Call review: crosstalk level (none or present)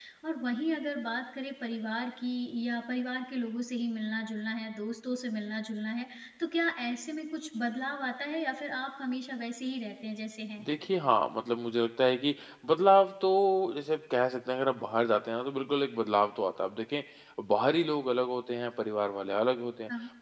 none